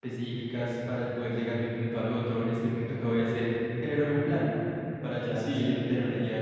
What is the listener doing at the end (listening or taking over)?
taking over